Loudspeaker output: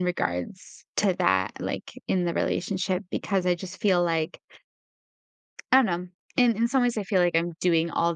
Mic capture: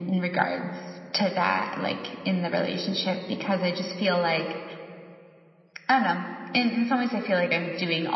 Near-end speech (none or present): none